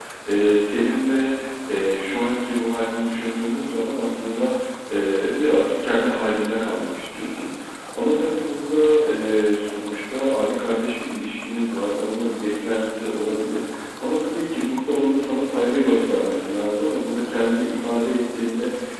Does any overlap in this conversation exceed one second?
No

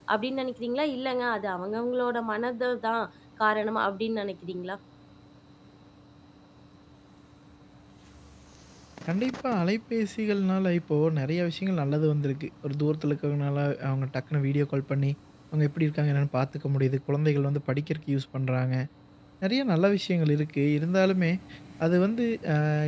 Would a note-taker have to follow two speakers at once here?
No

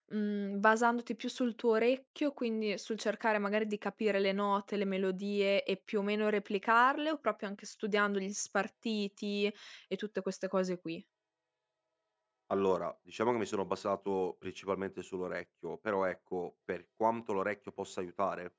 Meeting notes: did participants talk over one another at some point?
No

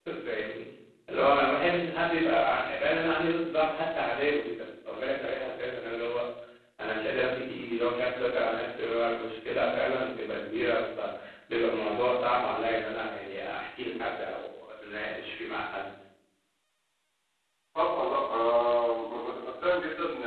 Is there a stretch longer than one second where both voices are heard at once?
No

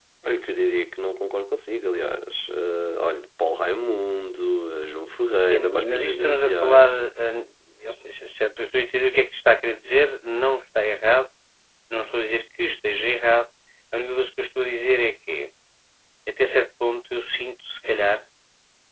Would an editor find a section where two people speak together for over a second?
Yes, from 5.5 s

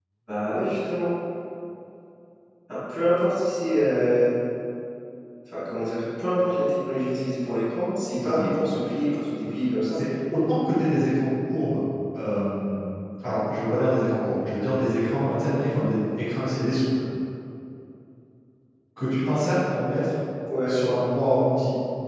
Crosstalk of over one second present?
No

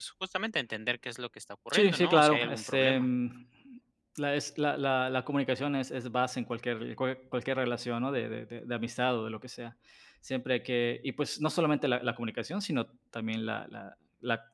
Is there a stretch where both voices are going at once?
Yes, from 1.7 s

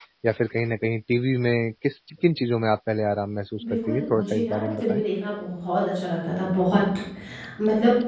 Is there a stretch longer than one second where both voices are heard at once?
Yes, from 3.6 s

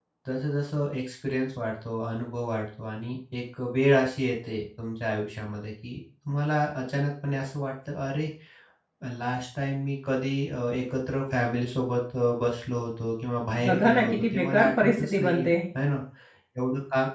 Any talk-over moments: Yes, from 13.6 s

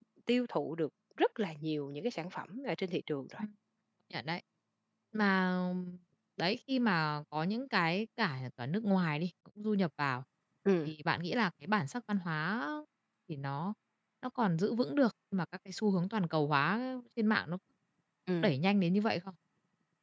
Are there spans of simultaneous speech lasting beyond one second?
No

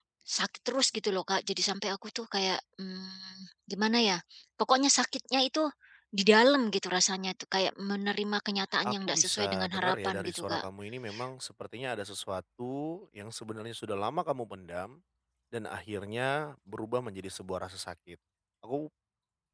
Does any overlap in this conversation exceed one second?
Yes, from 8.8 s

